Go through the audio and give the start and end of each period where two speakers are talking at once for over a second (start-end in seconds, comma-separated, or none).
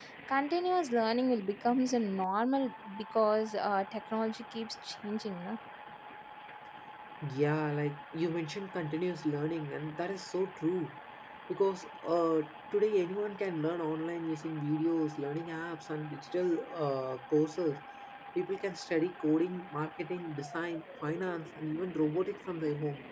none